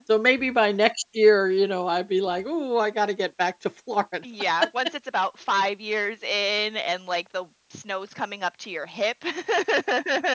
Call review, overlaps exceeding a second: none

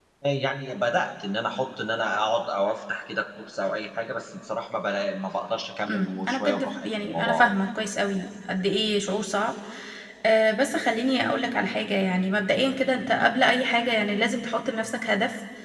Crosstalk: present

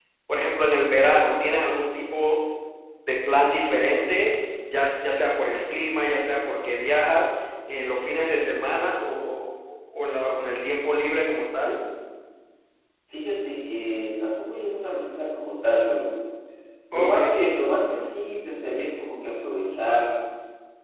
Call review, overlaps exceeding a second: none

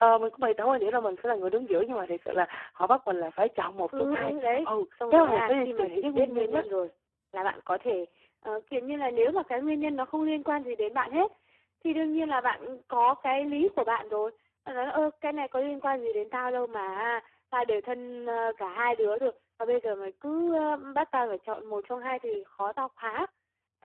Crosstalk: present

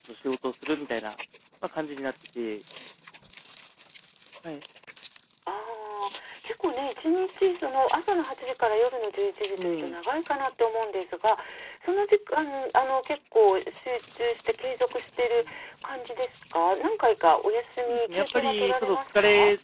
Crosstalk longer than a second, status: present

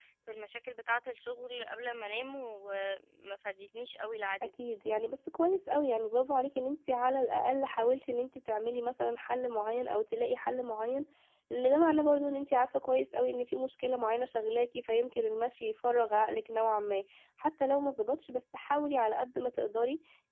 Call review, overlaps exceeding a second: none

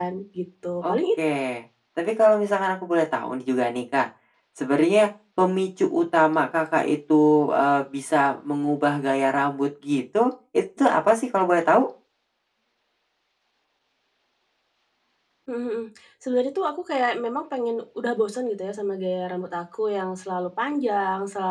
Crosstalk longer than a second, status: none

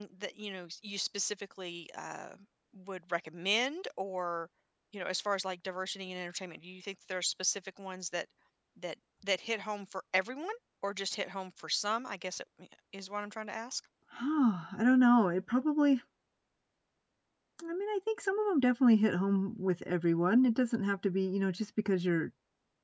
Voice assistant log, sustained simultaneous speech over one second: none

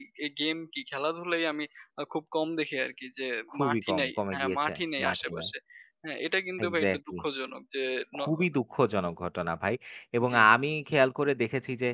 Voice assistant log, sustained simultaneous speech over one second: present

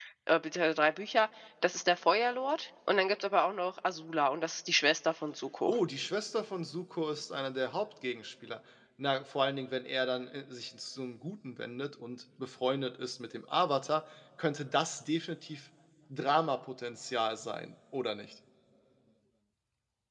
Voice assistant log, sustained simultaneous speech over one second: none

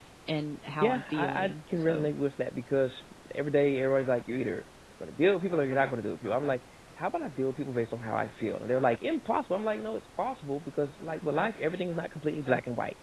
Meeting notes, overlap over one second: present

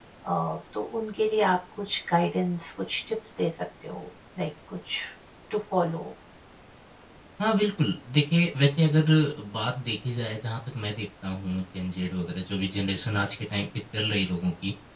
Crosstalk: none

